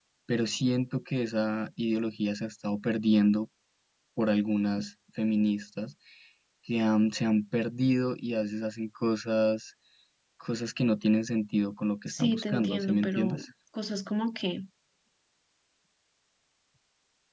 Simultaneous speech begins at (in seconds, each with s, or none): 12.1 s